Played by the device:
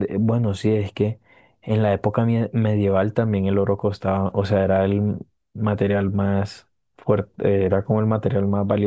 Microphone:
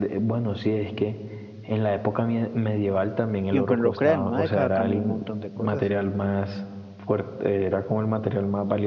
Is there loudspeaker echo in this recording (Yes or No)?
Yes